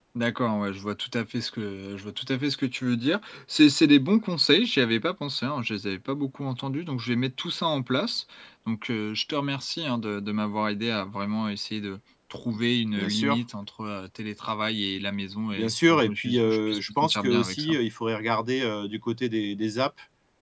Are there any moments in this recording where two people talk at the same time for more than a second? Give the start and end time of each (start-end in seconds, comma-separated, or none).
15.6-17.8